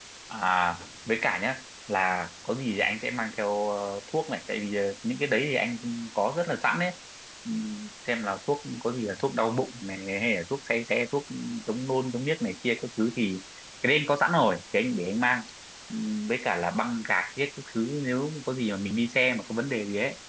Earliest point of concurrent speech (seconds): none

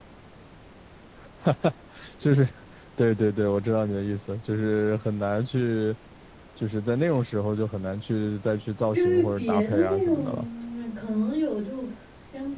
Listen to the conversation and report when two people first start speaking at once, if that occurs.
8.9 s

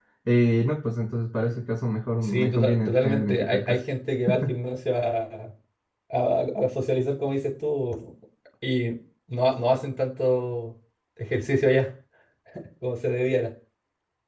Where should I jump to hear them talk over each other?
2.2 s

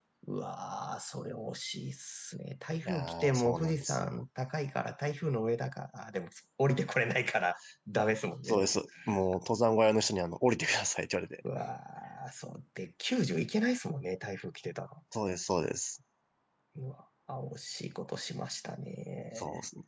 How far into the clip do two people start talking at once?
2.8 s

